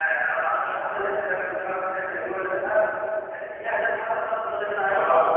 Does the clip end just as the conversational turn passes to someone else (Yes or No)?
Yes